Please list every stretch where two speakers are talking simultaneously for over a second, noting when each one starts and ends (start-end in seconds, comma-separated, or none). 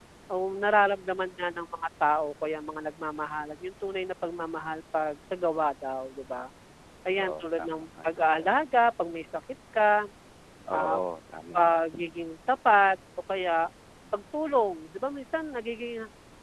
7.2-8.5